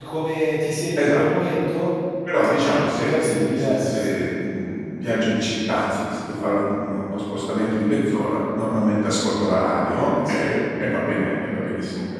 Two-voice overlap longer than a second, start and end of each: 2.5-4.1

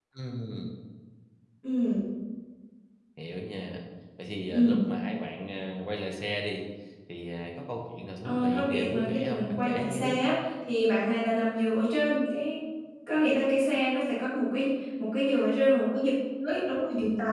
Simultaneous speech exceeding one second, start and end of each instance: 8.2-10.2

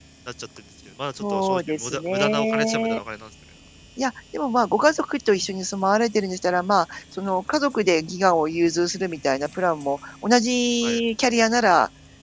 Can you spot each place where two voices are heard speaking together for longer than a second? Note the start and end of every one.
1.2-3.0

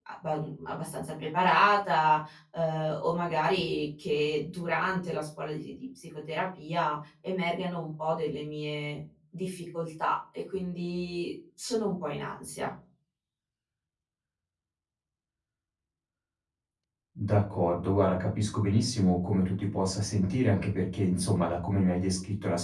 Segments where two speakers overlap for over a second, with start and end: none

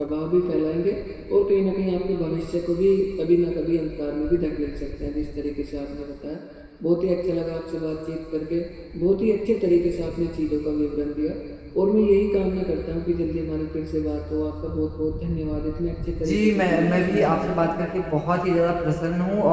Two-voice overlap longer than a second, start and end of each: 16.2-17.7

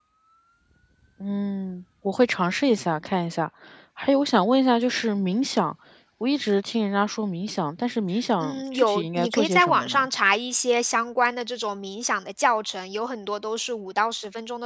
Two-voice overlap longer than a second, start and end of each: 8.4-10.1

